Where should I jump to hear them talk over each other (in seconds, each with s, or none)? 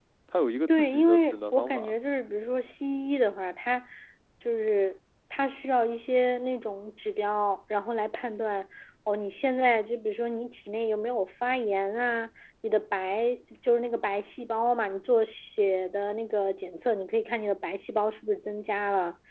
0.7 s